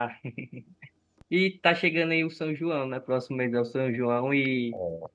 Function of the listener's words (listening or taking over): listening